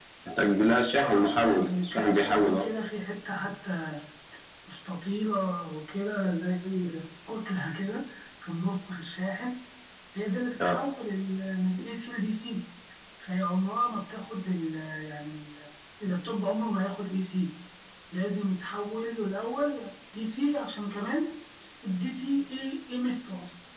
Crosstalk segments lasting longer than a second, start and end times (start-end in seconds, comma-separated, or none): 1.0-2.7